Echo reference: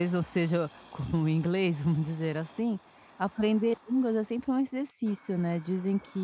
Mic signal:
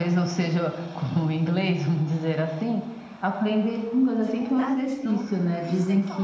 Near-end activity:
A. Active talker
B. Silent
A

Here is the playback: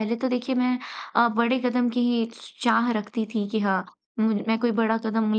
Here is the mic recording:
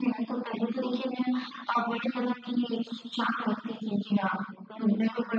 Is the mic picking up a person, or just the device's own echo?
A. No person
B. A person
A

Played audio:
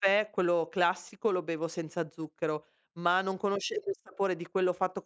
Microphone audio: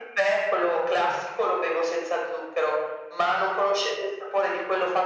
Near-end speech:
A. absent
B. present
A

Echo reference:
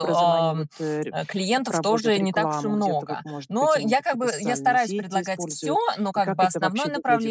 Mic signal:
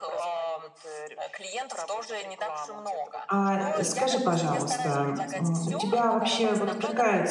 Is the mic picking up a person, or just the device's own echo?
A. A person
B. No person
A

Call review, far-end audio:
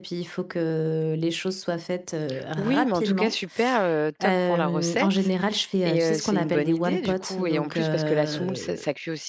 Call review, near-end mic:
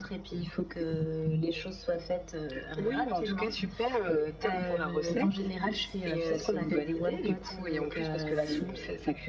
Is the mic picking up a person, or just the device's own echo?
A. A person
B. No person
B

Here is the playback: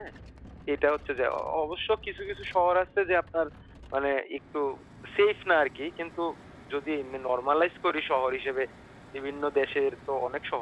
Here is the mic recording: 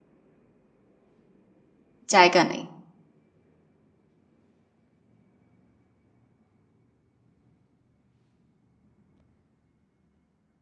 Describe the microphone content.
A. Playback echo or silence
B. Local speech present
B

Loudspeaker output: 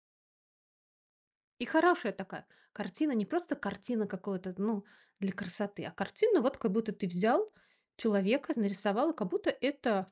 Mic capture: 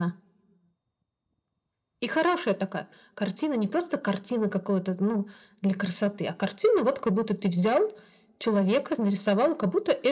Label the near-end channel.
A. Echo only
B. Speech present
A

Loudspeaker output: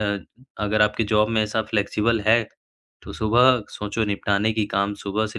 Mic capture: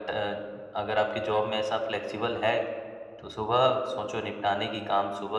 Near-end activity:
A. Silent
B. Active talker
A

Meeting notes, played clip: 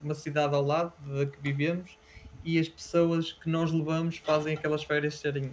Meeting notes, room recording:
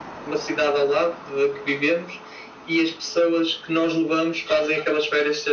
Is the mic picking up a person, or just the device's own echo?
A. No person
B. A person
A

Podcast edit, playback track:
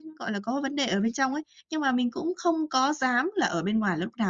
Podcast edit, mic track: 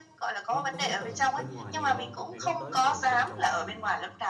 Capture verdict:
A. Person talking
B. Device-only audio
A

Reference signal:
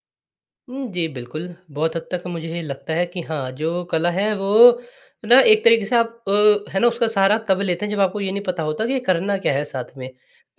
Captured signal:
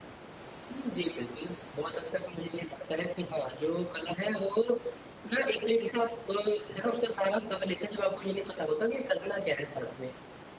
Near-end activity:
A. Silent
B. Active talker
A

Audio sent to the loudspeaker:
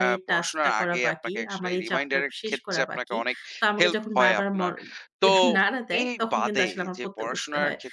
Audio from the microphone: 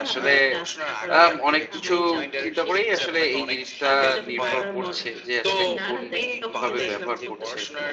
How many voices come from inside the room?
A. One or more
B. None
A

